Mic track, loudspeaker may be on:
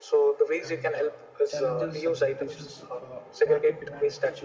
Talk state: both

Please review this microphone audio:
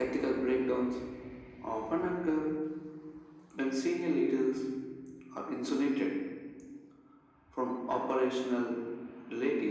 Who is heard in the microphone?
echo only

